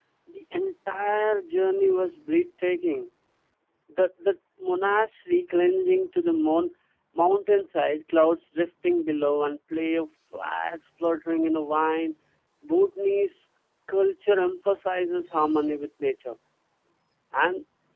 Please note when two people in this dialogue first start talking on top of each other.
none

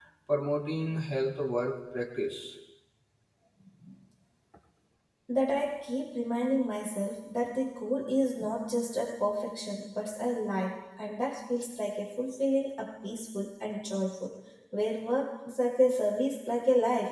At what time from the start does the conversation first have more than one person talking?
none

